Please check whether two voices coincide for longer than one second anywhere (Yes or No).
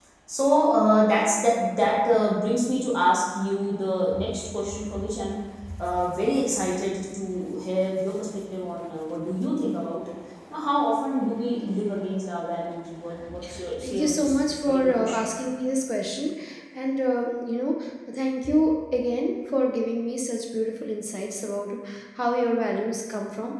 Yes